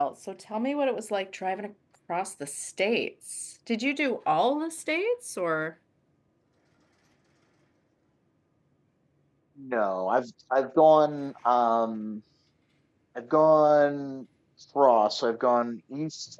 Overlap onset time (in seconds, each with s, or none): none